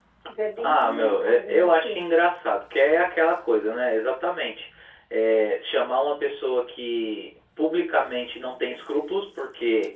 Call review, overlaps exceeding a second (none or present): present